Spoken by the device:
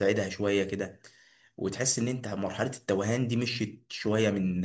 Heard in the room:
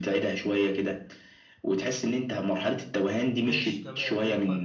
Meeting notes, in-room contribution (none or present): present